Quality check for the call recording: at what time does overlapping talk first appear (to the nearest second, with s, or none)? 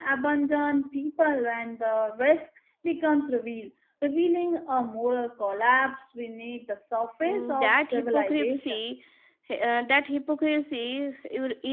7 s